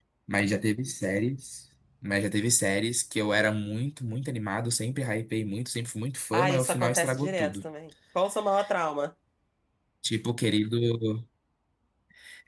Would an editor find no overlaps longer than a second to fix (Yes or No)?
No